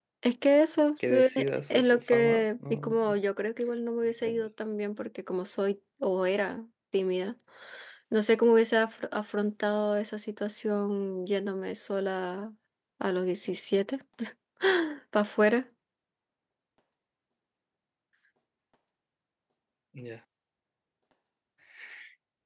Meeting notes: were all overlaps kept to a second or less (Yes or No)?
No